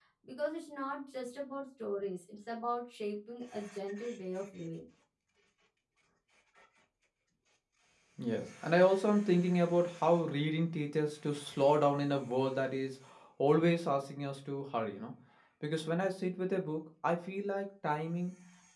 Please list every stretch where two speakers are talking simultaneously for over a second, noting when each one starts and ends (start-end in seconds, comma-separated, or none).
none